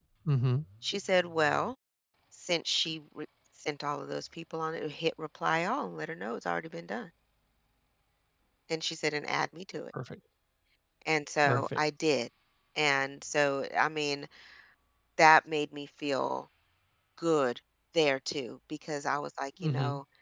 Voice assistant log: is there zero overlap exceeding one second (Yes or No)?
Yes